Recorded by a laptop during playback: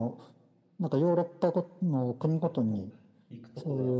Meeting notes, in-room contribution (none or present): present